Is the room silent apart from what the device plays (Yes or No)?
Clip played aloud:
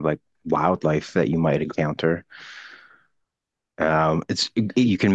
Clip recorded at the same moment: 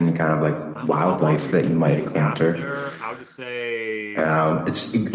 No